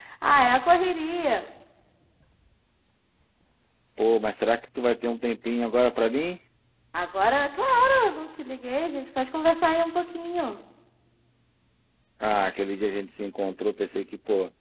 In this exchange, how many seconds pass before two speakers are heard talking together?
none

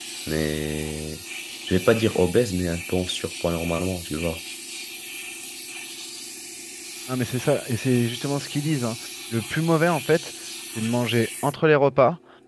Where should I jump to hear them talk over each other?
none

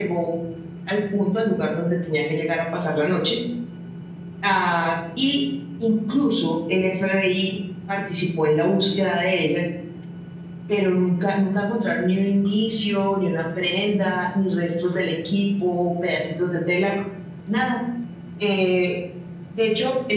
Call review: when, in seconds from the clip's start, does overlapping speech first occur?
none

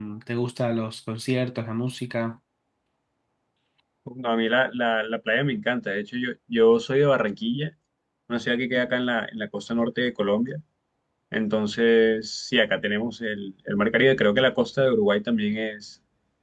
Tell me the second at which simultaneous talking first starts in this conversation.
none

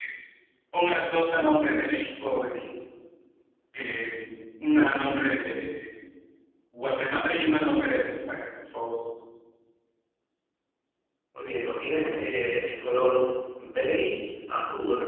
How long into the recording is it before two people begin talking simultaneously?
none

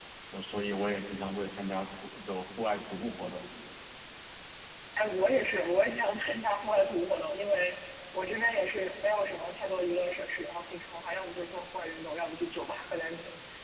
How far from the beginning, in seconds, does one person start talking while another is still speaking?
none

